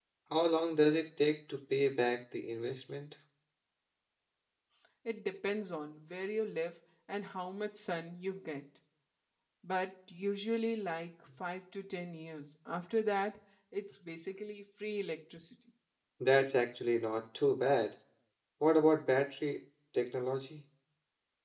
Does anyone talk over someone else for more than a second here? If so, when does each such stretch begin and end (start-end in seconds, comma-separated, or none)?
none